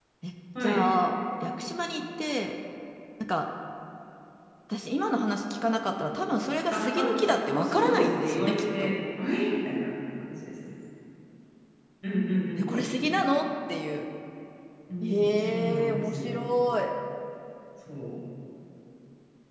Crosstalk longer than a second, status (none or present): present